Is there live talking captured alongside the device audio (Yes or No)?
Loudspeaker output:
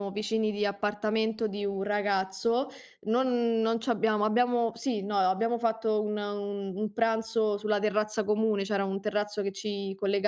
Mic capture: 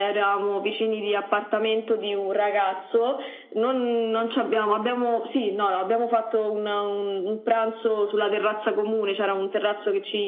No